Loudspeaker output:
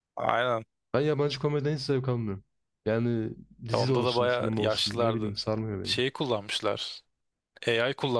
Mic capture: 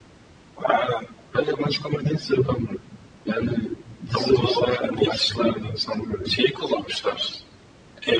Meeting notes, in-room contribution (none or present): none